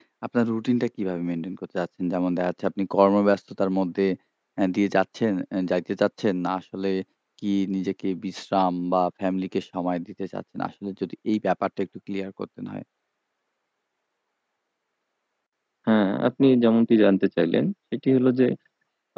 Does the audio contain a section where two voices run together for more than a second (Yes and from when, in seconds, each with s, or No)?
No